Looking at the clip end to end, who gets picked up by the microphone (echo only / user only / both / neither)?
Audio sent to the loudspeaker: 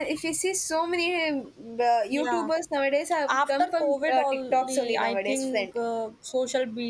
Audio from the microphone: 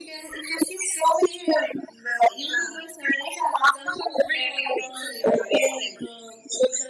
echo only